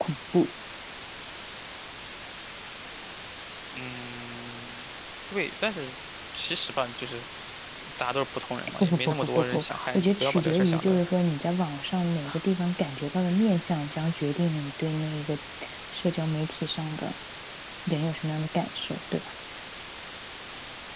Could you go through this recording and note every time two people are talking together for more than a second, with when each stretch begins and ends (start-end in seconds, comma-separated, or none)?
8.8-11.0